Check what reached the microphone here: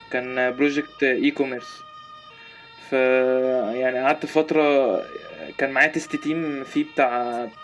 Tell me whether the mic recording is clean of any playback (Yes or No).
Yes